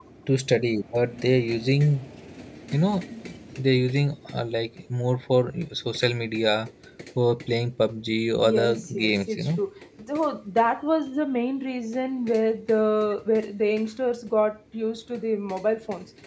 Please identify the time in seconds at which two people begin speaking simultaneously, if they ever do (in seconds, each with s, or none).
8.4 s